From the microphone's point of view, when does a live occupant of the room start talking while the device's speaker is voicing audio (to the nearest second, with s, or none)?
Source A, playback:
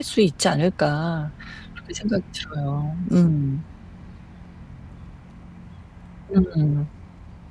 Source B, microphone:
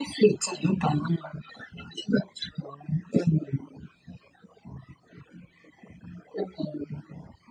none